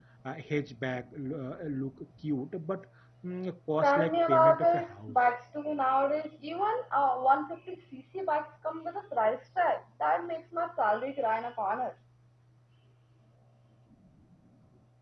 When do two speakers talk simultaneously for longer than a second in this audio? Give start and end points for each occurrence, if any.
3.8-5.2

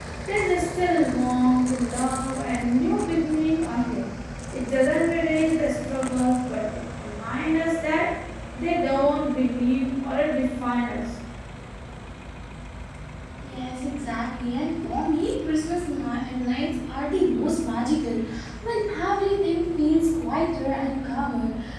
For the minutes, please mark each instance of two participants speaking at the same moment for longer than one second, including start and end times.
none

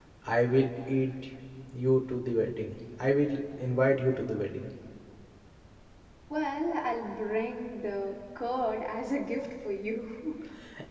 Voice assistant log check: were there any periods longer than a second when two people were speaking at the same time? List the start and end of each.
none

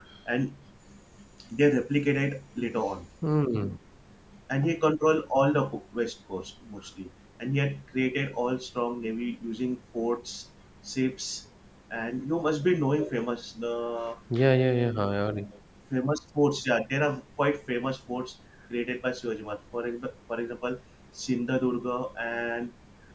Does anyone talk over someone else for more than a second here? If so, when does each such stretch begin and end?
none

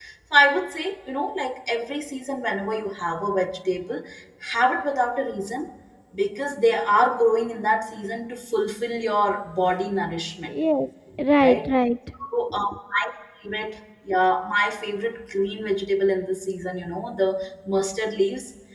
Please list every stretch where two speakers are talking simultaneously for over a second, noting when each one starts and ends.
none

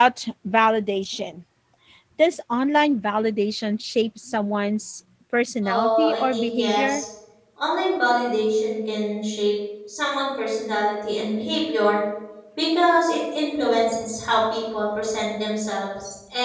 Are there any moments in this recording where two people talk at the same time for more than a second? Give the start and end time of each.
5.6-7.0

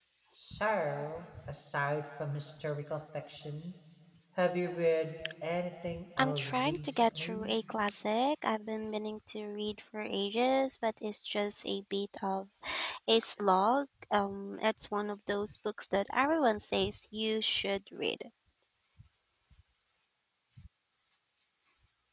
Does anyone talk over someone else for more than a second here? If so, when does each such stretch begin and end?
6.2-7.5

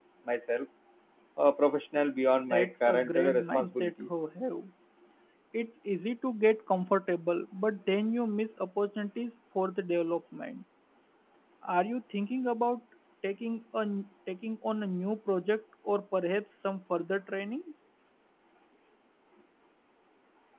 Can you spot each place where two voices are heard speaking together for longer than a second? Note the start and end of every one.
2.5-4.1

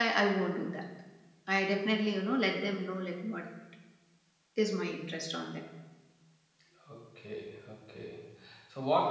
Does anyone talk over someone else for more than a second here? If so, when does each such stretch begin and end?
none

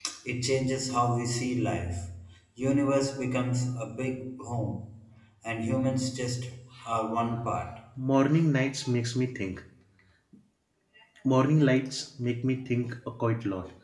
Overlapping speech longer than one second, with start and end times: none

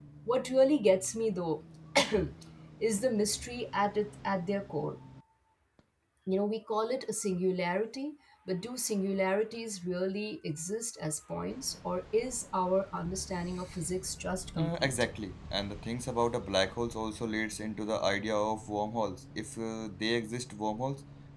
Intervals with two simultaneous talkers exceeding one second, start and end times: none

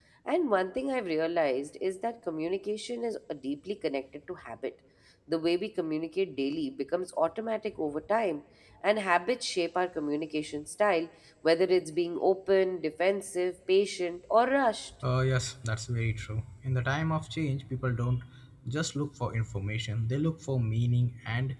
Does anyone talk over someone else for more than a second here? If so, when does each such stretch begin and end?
none

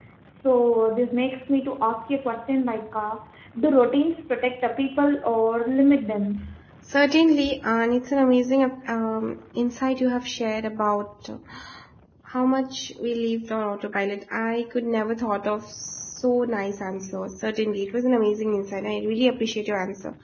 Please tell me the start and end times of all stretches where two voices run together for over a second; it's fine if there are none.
none

